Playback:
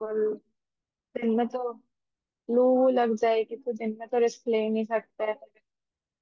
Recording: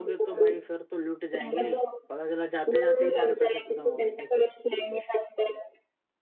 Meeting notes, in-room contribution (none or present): present